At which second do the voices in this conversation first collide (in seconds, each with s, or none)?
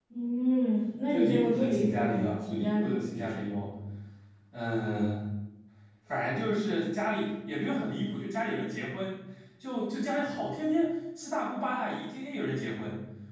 1.1 s